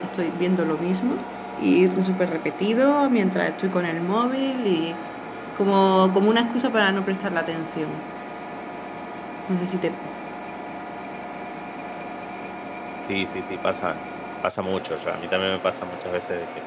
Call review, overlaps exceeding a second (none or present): none